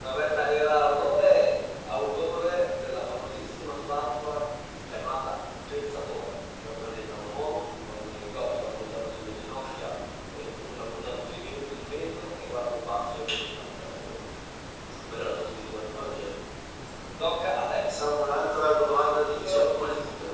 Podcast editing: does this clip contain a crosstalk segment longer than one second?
Yes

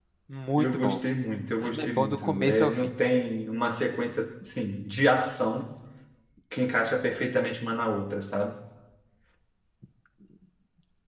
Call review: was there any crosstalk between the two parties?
Yes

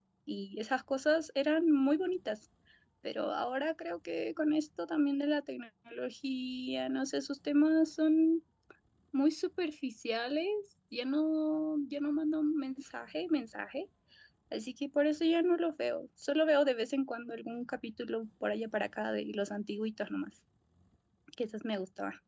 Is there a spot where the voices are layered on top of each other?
No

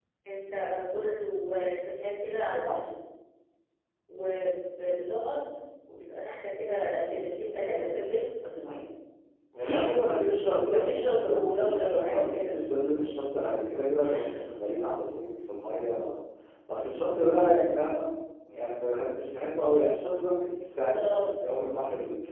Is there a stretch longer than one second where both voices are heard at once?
Yes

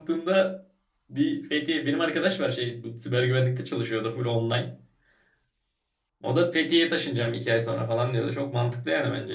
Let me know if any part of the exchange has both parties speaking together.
No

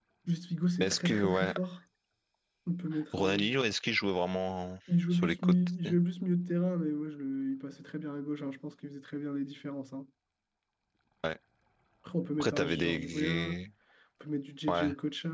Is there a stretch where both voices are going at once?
Yes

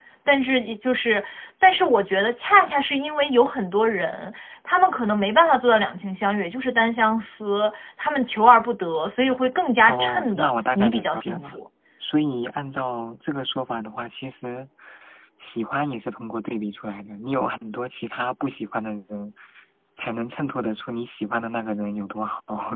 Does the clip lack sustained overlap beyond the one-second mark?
No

